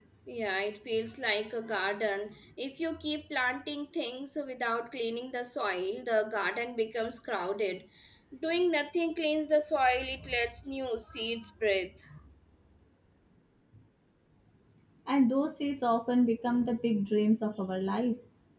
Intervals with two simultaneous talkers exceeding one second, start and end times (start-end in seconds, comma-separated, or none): none